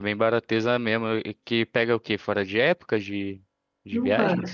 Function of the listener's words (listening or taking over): taking over